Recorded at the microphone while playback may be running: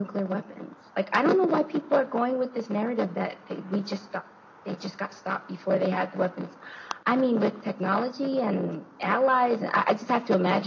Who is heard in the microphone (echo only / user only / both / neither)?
echo only